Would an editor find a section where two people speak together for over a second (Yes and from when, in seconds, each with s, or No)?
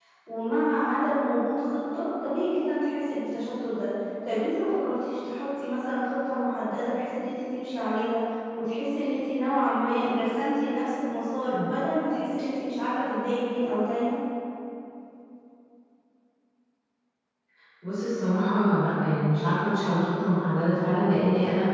No